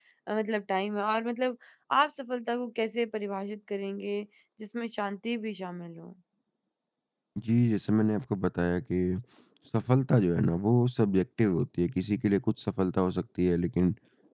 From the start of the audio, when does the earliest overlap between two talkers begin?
none

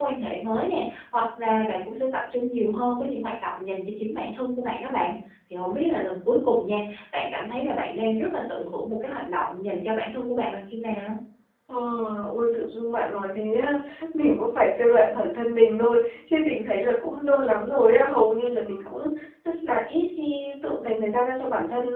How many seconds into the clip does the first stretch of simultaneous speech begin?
none

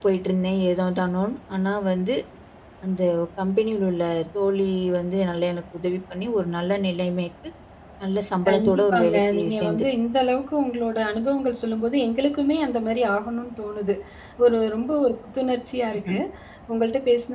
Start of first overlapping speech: 8.5 s

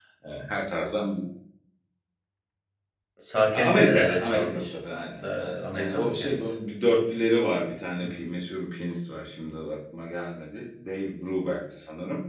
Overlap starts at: 3.5 s

